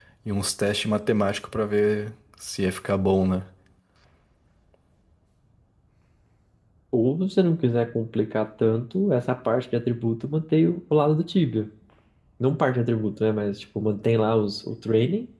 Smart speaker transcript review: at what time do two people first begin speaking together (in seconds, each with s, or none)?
none